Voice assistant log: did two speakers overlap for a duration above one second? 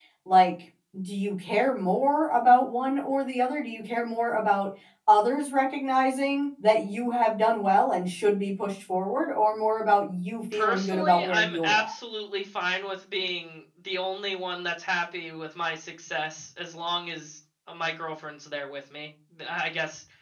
Yes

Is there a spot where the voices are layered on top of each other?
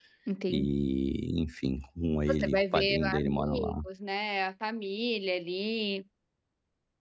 Yes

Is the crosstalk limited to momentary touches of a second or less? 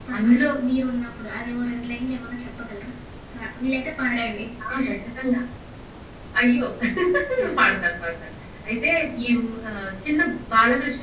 Yes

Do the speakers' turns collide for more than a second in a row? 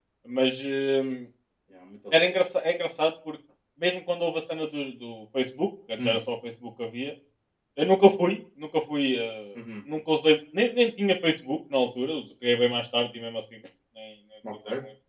No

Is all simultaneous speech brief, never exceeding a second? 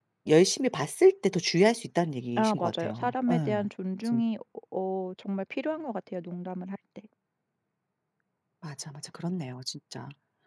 No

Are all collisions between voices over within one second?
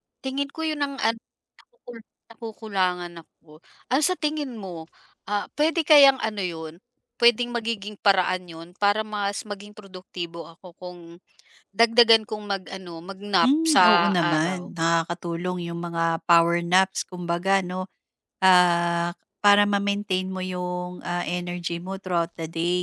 No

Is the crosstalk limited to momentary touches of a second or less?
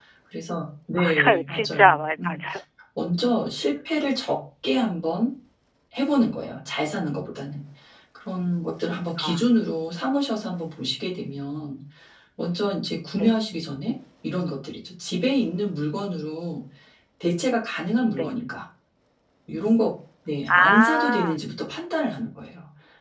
No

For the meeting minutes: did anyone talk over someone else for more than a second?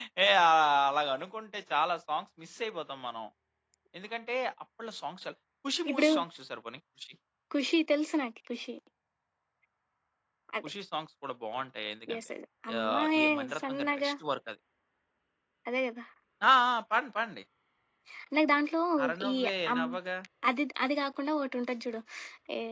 Yes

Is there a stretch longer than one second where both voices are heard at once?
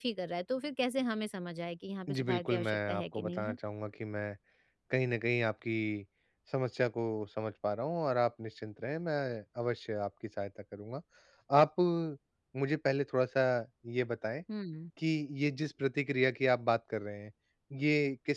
Yes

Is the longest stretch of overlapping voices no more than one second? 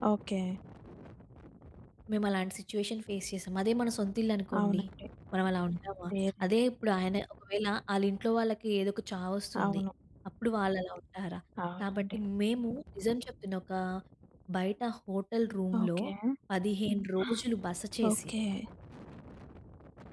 Yes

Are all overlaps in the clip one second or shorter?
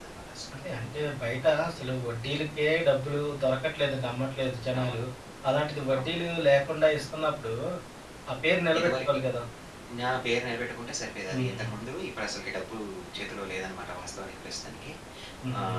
Yes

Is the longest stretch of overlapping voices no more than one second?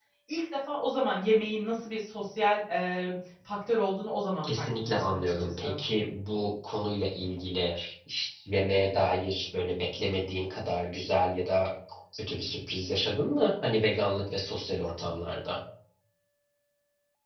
No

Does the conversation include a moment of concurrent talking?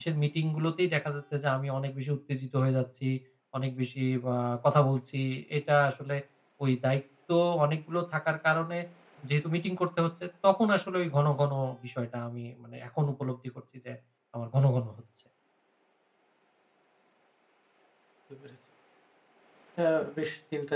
No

